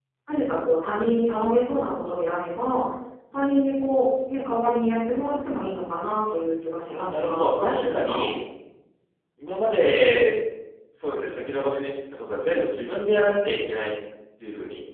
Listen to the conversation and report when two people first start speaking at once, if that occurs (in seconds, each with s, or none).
6.9 s